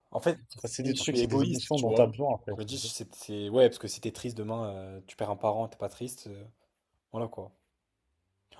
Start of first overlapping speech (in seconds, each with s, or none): 0.8 s